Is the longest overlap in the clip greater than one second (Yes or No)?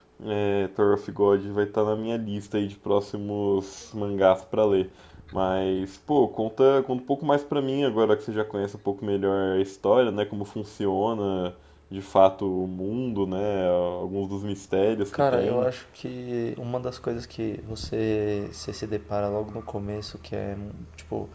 No